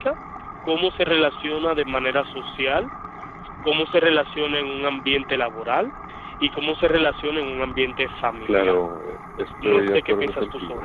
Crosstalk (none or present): present